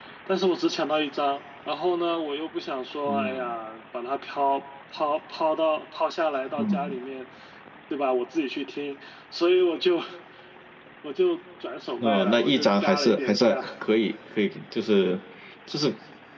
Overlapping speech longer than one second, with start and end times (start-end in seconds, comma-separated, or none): 12.0-13.6